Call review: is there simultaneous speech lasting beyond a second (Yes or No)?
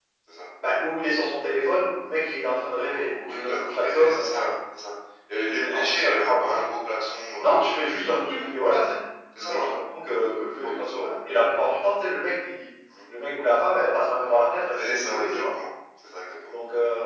Yes